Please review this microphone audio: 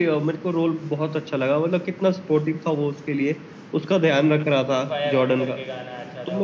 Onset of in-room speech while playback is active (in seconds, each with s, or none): 4.5 s